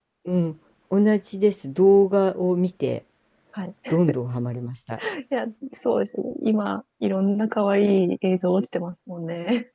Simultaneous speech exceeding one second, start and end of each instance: none

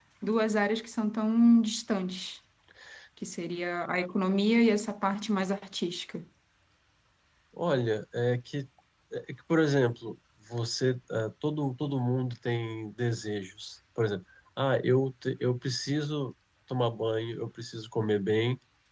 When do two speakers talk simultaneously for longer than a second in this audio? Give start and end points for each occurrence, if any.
none

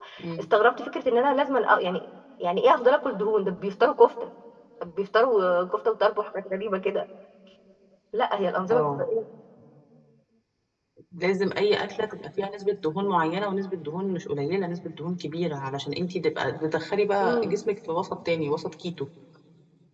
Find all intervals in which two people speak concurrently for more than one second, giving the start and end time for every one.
none

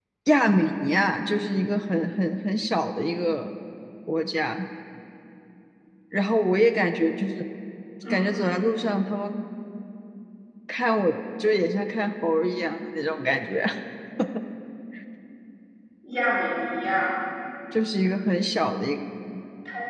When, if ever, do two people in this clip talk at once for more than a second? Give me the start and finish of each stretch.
none

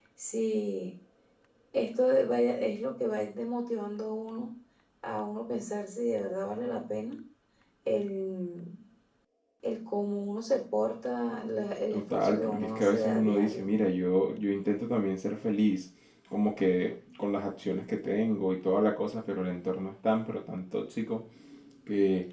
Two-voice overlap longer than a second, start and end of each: 11.9-13.7

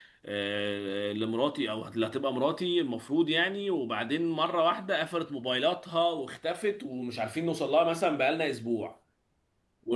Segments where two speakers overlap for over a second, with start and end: none

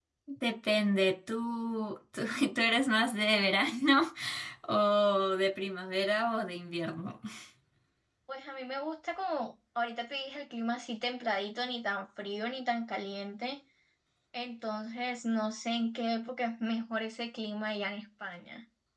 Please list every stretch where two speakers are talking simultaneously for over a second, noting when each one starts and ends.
none

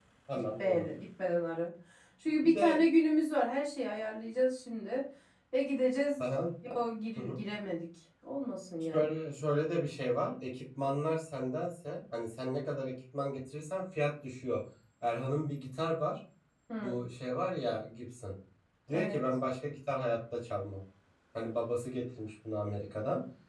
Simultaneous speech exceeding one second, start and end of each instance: none

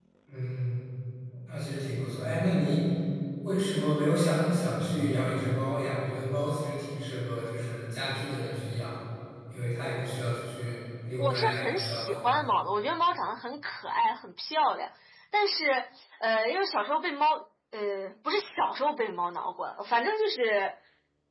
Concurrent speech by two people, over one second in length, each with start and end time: 11.2-12.5

